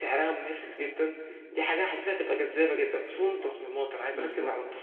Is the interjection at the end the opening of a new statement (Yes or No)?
No